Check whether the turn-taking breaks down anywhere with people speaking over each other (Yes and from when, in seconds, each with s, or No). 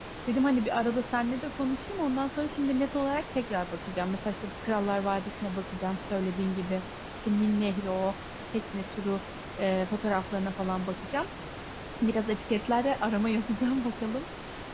No